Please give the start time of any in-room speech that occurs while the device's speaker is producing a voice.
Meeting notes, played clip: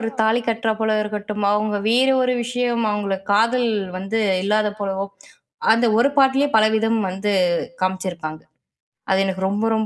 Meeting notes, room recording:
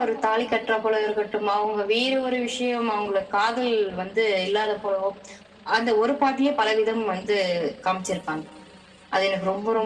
none

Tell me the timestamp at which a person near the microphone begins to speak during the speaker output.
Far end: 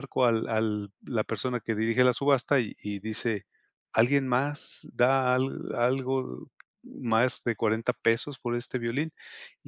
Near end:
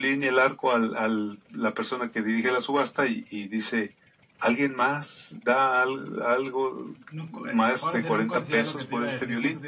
7.0 s

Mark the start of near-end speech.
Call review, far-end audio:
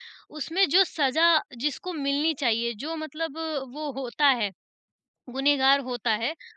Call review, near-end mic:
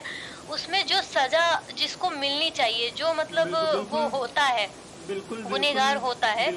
3.3 s

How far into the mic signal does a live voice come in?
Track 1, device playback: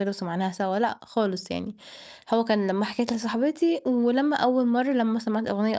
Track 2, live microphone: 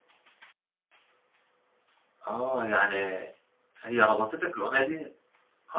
2.3 s

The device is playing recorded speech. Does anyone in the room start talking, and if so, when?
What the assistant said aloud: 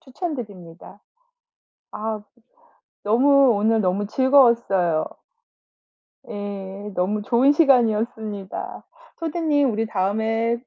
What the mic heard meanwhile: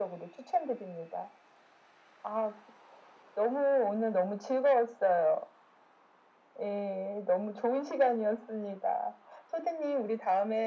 none

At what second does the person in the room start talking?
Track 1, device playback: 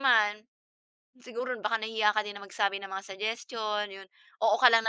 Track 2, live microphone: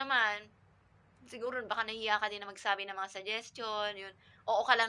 none

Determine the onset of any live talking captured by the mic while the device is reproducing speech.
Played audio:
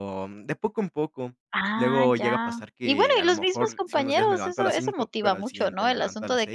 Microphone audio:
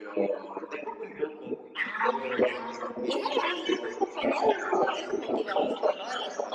none

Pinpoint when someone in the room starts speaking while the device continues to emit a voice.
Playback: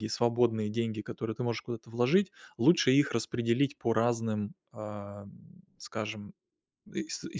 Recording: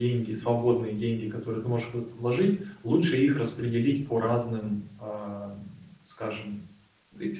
none

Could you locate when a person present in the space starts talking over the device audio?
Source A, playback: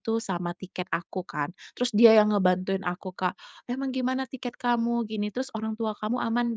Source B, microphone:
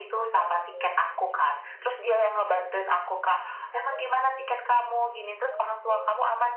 none

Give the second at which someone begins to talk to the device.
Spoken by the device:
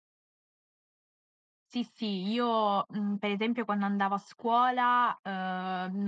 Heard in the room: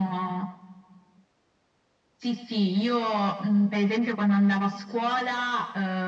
none

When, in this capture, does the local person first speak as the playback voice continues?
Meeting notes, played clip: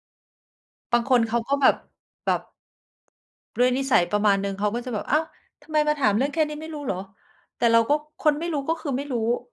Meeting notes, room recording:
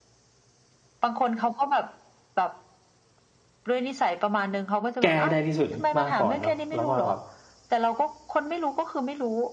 5.0 s

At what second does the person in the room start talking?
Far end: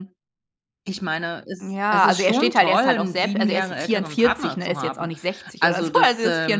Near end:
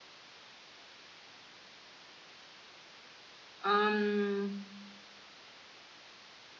3.6 s

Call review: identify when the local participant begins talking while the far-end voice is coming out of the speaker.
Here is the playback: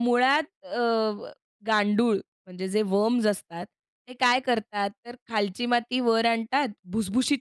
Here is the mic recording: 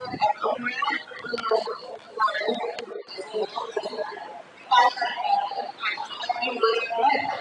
none

